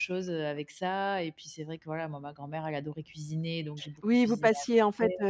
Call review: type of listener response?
taking over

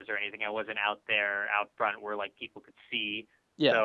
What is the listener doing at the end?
listening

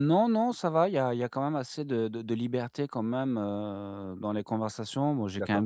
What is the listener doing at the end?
listening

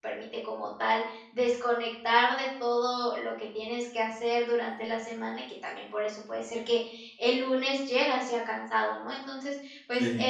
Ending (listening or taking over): listening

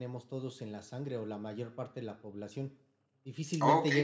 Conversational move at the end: taking over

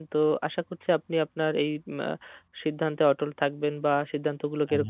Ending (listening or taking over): listening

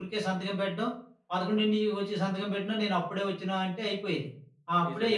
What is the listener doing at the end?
taking over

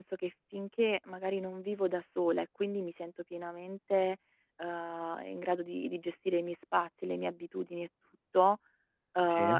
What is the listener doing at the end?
listening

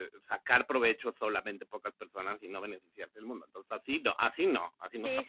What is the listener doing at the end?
taking over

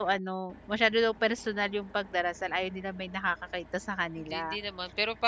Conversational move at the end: taking over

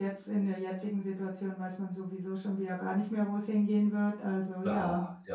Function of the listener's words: taking over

